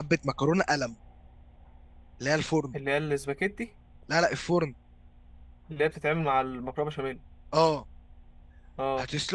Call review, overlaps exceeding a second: none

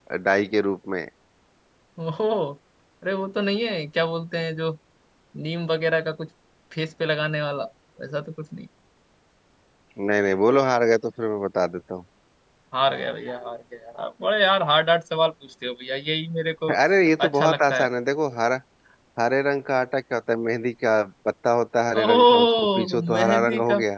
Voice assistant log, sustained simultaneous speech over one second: present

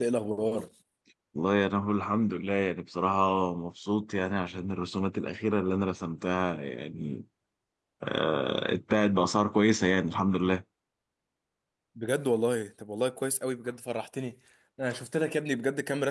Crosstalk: none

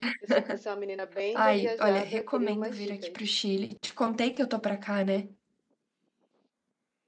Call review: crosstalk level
present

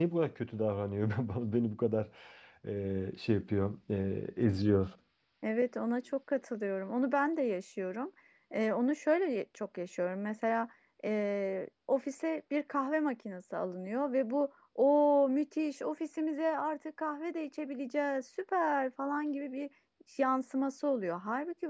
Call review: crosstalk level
none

